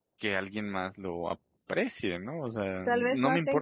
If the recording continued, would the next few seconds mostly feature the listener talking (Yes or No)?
Yes